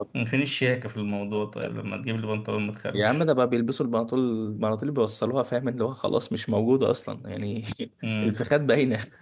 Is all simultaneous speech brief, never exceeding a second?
Yes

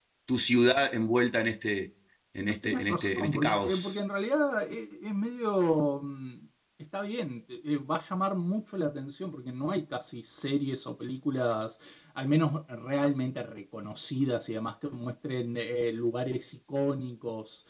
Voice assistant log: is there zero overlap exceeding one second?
No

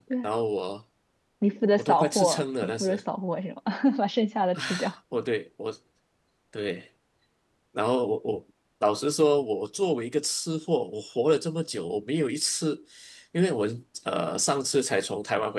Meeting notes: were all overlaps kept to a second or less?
No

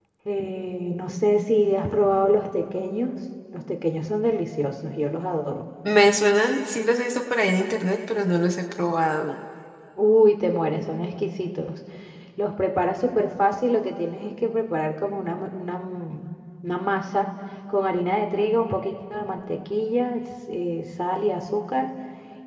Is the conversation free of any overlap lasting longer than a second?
Yes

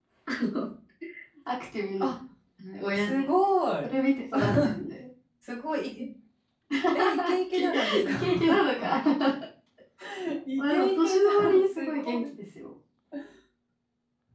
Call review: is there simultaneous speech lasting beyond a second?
Yes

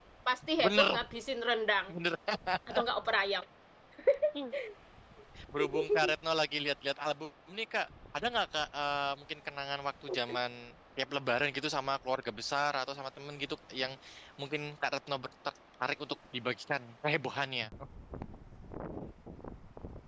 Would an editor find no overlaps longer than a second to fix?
Yes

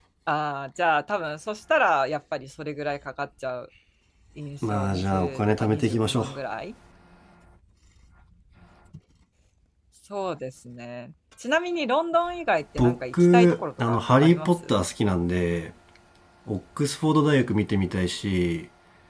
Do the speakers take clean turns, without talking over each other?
No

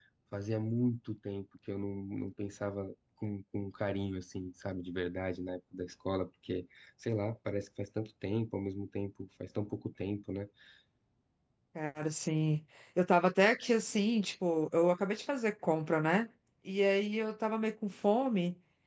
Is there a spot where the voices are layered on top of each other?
No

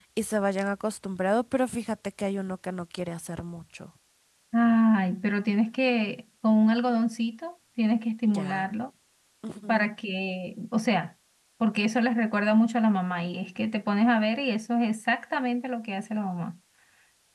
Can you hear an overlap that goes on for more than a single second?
No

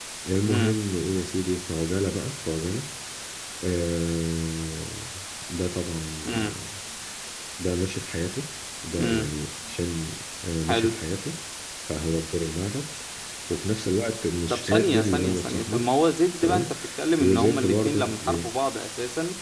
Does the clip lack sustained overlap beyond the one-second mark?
No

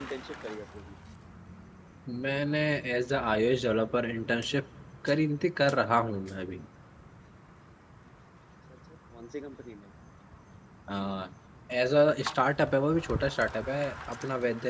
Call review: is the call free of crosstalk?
Yes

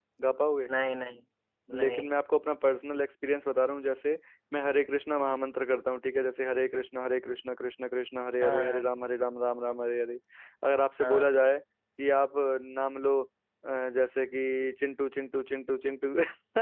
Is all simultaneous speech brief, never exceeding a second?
Yes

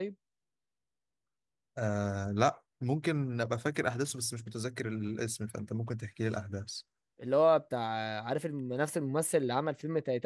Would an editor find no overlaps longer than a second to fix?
Yes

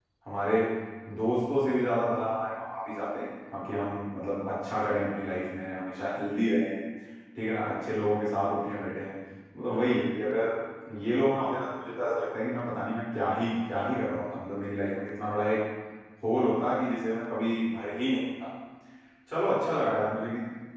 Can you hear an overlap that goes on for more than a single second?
No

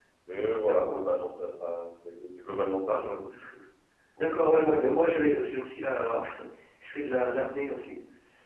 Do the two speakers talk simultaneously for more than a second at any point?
No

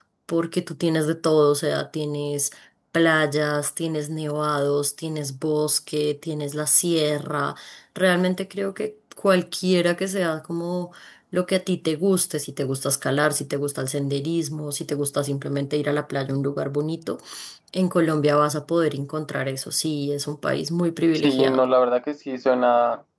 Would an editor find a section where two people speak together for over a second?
No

